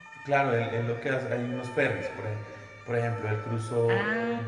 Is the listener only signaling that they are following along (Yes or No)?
Yes